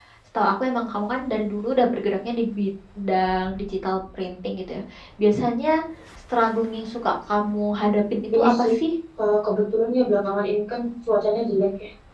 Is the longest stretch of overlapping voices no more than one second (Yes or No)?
Yes